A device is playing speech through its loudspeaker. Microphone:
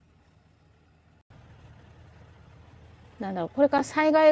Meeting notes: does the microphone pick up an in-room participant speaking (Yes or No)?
Yes